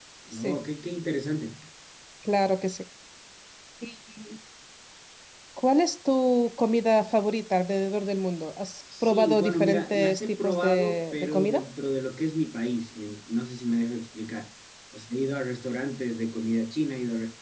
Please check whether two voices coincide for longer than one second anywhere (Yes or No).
Yes